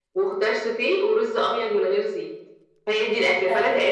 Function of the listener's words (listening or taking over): taking over